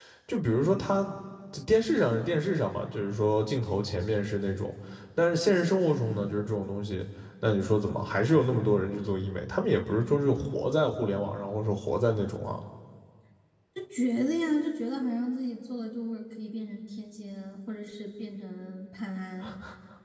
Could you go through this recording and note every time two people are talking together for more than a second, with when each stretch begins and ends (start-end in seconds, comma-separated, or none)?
none